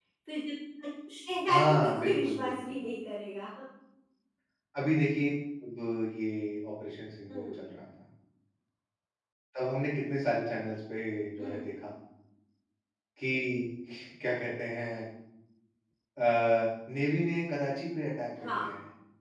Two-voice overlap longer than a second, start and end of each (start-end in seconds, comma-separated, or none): 1.5-2.8